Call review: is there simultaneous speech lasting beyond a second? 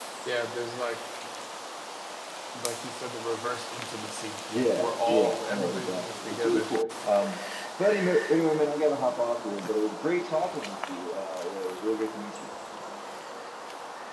Yes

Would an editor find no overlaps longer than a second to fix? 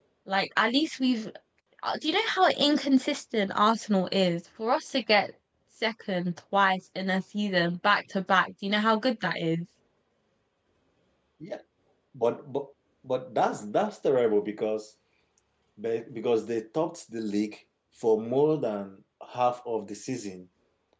Yes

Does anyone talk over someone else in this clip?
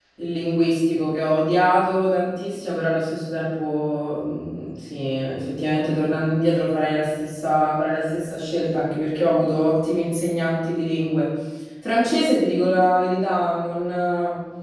No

